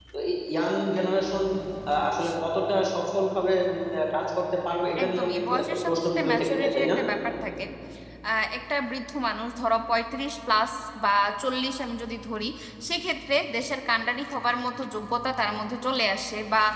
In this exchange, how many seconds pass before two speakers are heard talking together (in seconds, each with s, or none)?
5.0 s